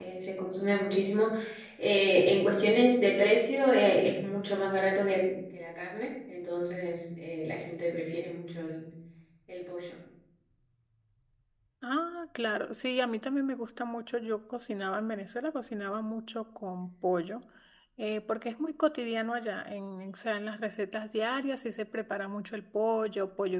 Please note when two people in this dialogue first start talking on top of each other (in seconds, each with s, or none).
none